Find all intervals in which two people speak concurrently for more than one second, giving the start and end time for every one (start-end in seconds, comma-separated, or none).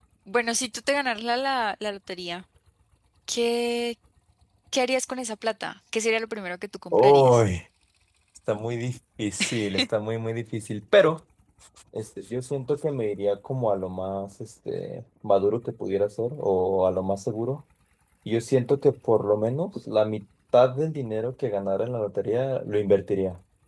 none